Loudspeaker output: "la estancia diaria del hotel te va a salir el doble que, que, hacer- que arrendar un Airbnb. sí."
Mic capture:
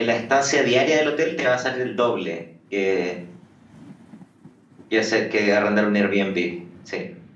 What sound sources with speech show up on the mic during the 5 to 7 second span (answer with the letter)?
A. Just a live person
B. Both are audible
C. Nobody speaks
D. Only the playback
D